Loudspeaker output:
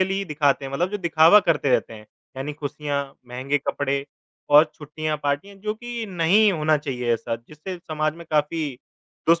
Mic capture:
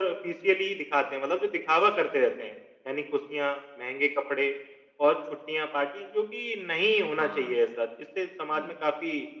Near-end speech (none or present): present